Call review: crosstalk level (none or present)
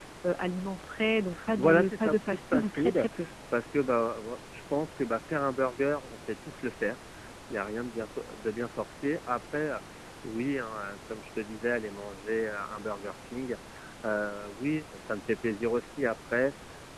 present